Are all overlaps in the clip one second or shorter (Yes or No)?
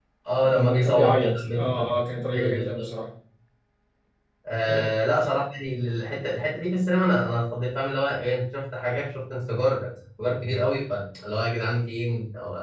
No